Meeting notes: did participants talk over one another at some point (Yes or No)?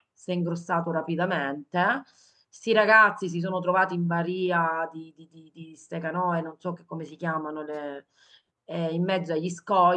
No